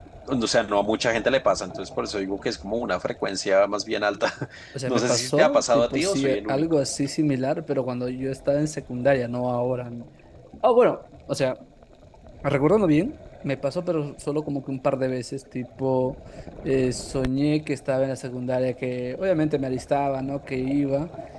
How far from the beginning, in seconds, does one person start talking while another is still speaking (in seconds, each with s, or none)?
4.9 s